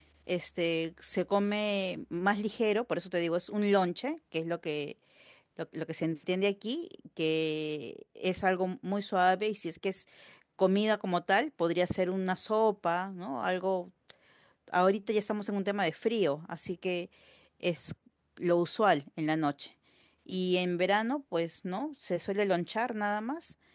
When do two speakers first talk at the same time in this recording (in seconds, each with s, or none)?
none